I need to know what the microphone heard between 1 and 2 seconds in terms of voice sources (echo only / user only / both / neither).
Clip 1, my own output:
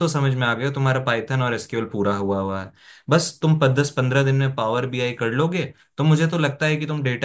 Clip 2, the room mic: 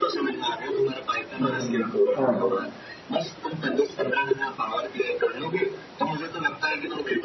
both